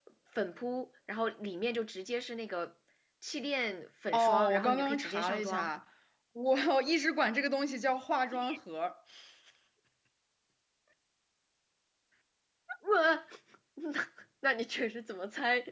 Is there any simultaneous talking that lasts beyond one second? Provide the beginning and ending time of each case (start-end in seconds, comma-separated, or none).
4.1-5.7